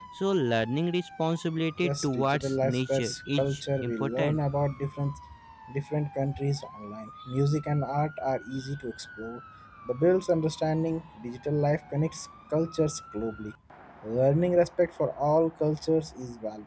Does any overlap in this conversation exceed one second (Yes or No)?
Yes